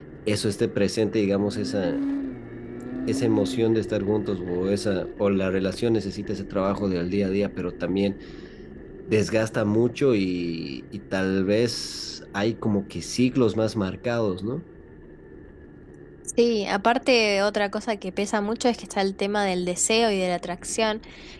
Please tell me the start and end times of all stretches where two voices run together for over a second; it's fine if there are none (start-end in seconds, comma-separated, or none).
none